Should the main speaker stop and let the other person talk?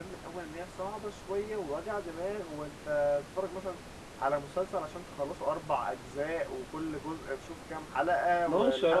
Yes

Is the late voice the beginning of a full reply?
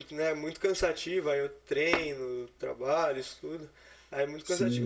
No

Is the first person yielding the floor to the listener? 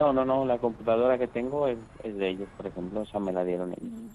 No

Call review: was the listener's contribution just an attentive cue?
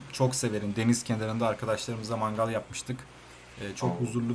Yes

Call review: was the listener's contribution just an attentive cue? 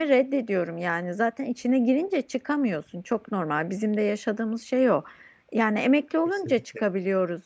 Yes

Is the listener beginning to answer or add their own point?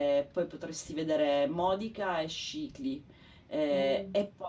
No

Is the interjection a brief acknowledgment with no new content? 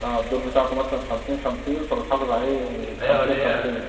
No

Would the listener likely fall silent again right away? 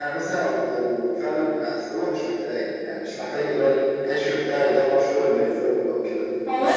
No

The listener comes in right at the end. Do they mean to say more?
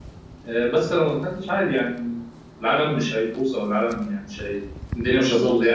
No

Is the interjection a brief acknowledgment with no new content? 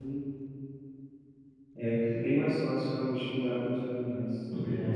No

